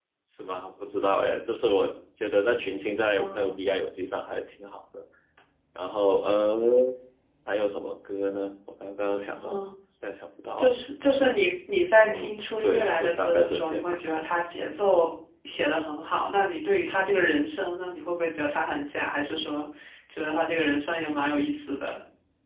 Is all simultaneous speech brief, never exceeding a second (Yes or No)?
No